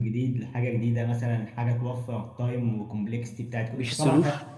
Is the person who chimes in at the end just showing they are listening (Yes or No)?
No